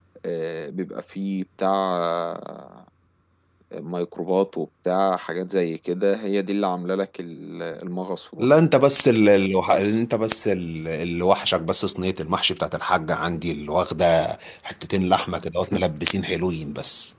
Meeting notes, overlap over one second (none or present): none